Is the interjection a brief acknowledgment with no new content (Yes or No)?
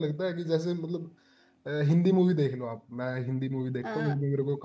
Yes